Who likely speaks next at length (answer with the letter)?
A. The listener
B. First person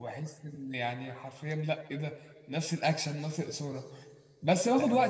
B